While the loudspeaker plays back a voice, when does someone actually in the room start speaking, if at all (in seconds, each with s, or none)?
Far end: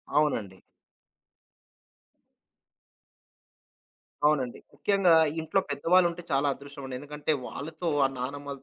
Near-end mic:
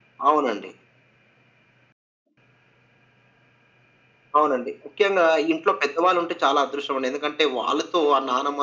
none